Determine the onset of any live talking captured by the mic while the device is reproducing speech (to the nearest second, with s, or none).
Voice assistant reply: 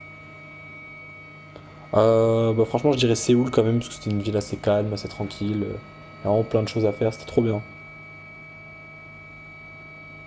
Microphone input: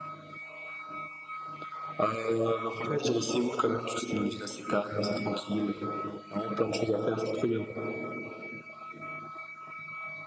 none